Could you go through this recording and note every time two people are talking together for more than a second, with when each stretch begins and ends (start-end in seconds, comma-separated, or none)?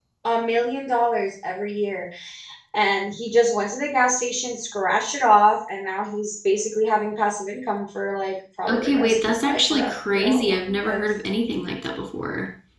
8.7-11.0